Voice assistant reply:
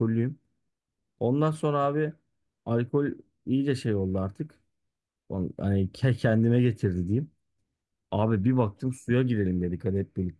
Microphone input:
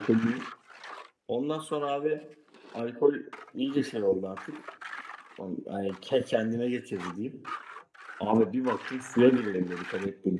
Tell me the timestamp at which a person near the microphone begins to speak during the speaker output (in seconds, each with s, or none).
none